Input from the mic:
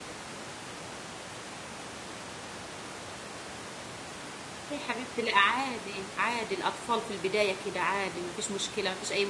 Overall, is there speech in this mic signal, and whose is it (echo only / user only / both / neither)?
user only